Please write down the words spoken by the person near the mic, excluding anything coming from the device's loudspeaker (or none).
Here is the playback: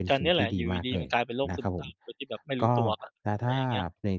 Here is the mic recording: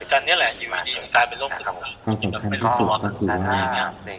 ความสำคัญที่สุดก็คือว่า